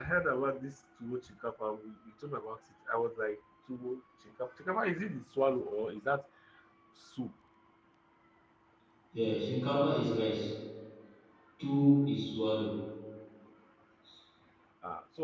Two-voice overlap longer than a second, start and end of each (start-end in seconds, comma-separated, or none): none